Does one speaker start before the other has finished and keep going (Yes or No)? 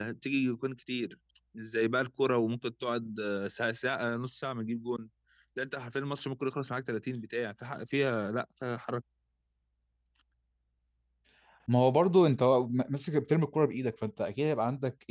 No